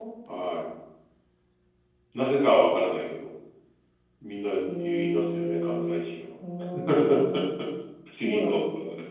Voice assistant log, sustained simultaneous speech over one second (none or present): present